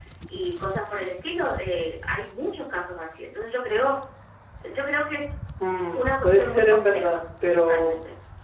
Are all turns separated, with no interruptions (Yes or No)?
No